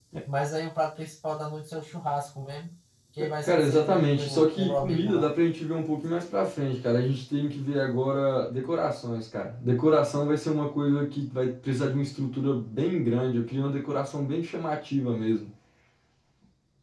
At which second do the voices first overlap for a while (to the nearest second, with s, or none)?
3 s